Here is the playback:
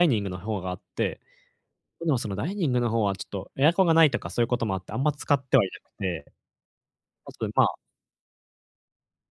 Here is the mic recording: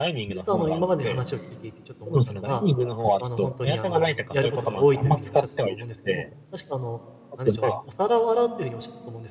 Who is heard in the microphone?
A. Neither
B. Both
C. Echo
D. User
B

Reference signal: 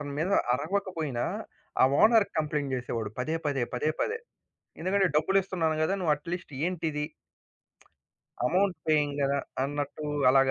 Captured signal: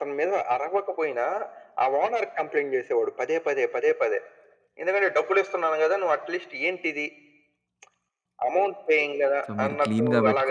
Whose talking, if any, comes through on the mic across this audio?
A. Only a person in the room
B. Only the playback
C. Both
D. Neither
C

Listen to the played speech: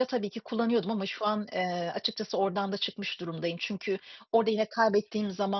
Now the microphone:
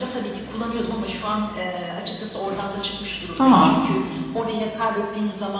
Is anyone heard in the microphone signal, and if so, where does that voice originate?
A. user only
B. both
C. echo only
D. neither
B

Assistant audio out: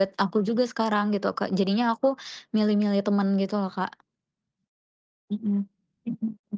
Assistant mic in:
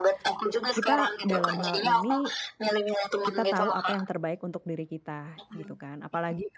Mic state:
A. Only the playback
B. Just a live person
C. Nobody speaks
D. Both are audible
D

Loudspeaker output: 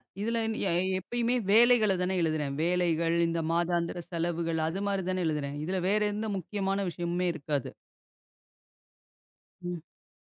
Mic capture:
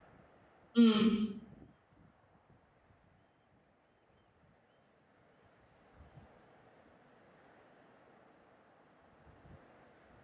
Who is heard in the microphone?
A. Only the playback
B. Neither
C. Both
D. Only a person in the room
D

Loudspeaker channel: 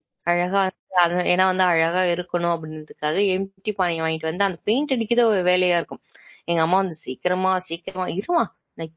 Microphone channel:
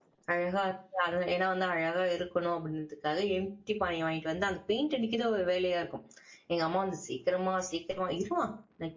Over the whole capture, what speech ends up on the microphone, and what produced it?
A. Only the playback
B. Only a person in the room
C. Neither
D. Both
A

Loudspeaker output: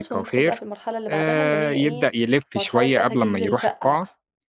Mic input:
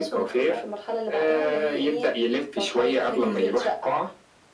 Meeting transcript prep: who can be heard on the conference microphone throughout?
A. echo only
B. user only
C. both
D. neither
A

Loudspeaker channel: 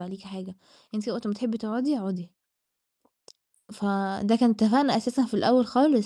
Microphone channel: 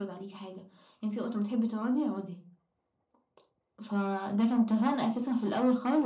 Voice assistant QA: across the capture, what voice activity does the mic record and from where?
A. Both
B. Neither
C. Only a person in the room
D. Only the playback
D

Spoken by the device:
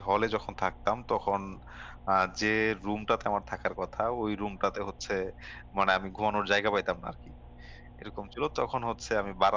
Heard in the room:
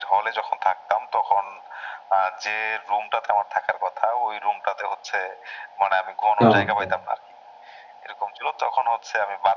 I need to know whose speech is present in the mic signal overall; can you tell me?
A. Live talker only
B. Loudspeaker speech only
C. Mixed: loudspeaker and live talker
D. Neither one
C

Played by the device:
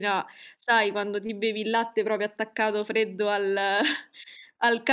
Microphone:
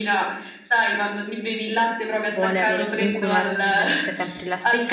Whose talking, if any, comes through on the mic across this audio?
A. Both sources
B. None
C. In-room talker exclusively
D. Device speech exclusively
A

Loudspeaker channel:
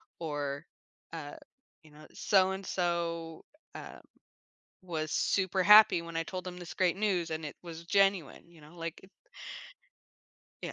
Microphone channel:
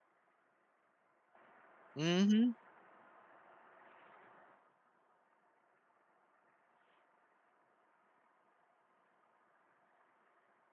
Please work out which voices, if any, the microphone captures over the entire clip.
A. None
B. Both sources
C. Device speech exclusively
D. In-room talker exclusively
D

